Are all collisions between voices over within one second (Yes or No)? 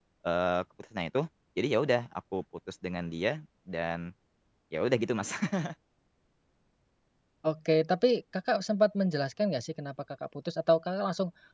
Yes